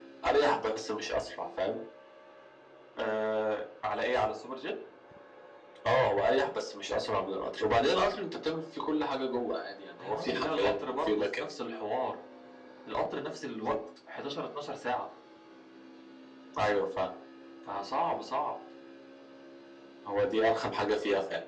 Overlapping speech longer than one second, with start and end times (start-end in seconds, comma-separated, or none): 10.0-11.5